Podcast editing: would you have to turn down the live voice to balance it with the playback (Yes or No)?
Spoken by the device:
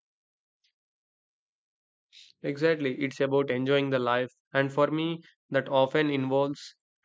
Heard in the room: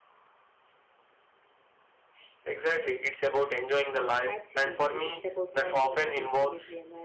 No